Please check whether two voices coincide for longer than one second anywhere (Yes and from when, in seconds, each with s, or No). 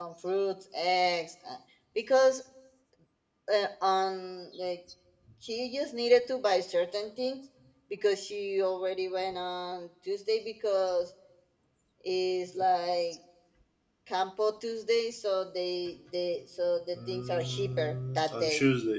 Yes, from 17.0 s